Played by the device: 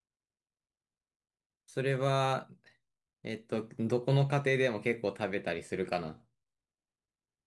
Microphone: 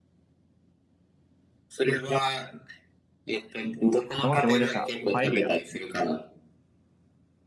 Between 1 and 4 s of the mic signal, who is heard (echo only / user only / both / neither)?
echo only